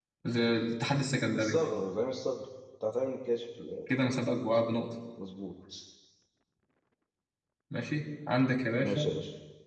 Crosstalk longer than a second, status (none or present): none